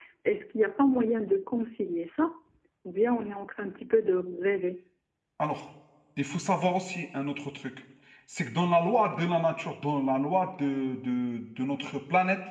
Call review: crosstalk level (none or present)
none